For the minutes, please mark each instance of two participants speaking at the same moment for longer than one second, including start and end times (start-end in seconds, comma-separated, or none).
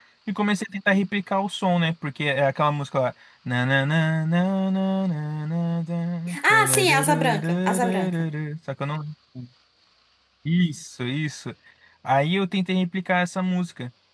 6.5-8.2